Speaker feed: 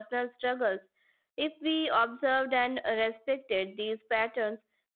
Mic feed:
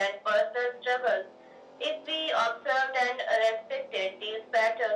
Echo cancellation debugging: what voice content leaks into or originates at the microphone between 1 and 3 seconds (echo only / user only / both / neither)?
echo only